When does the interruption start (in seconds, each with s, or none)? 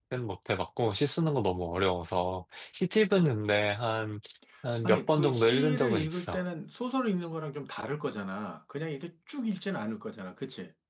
4.8 s